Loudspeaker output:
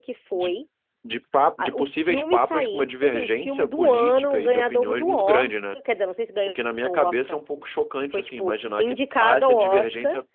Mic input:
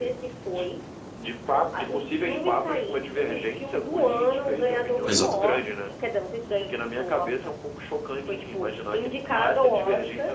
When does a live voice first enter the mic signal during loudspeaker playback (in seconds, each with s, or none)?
5.0 s